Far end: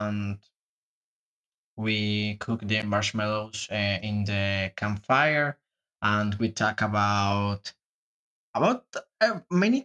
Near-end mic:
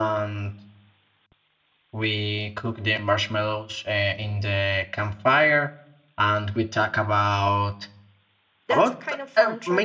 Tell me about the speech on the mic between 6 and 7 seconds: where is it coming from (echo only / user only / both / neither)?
echo only